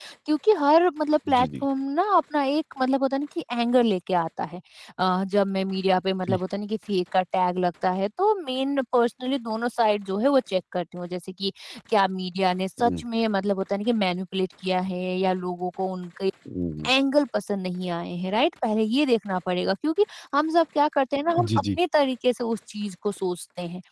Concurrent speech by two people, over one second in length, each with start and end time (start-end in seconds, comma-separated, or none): none